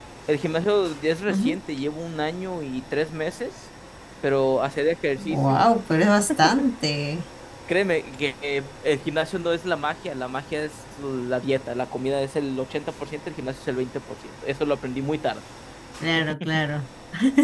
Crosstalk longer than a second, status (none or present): none